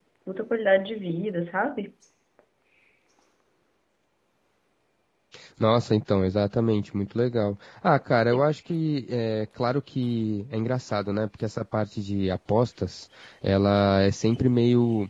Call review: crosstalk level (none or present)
none